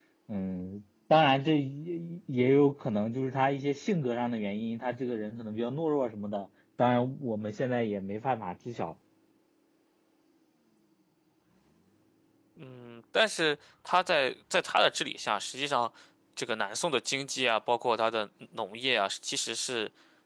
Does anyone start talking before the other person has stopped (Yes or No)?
No